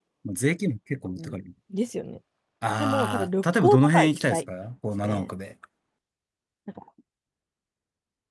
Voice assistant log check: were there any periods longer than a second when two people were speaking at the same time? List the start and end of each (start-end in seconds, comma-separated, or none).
2.8-4.4